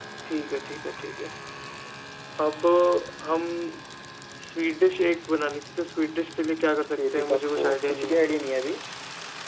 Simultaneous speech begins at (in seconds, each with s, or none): 6.9 s